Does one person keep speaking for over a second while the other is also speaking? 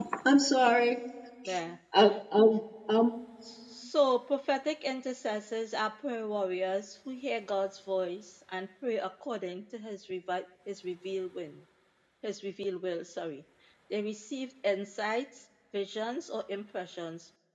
No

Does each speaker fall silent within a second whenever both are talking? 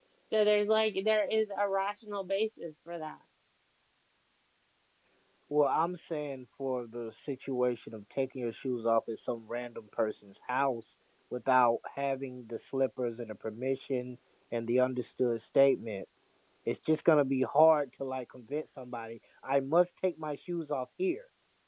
Yes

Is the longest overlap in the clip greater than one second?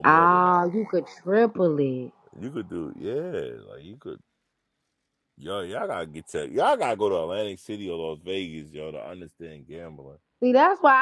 No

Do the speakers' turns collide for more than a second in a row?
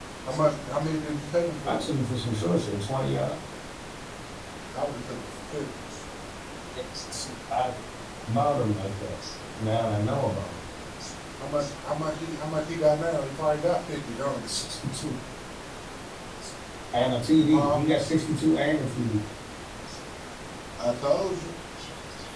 No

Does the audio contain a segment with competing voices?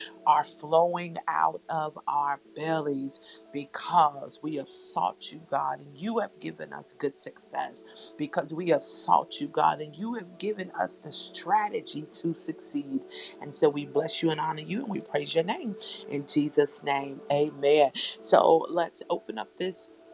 No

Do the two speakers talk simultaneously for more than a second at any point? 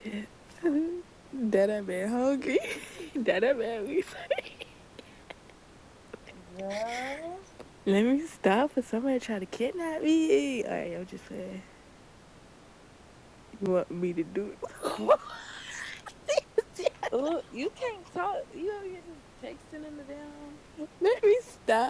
No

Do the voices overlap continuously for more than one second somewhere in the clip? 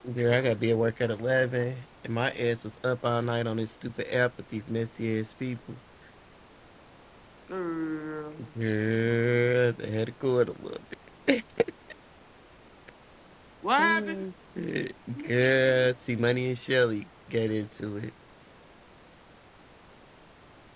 No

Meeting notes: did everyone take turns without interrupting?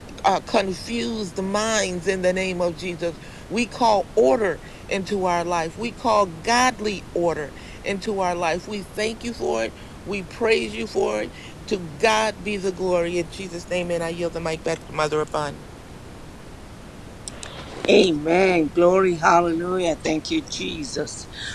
Yes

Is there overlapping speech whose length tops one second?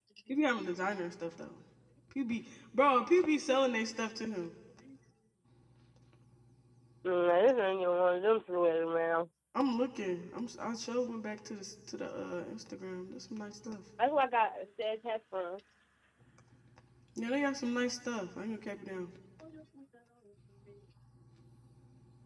No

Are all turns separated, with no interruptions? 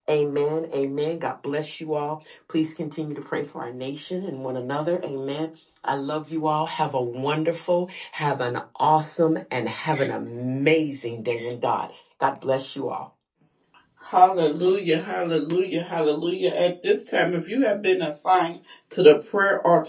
Yes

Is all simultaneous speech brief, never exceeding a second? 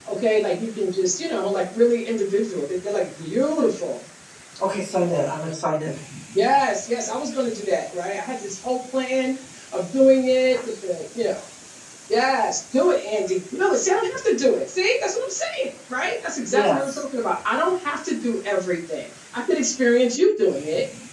Yes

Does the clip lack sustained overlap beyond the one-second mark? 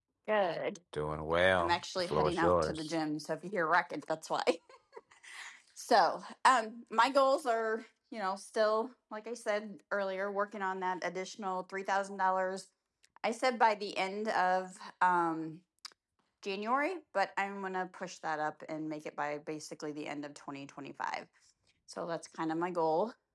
No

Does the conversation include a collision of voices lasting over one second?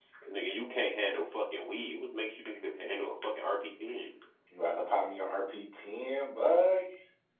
No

